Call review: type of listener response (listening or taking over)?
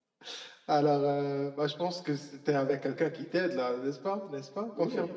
taking over